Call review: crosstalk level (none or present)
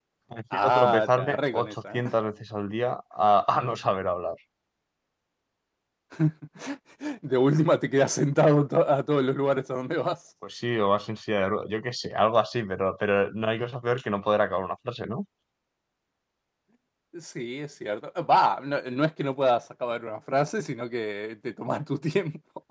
present